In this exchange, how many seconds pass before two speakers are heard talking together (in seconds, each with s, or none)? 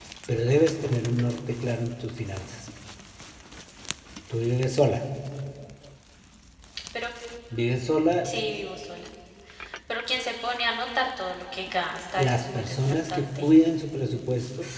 12.2 s